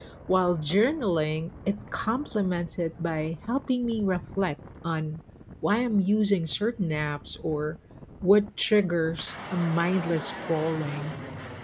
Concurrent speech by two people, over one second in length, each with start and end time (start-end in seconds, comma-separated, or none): none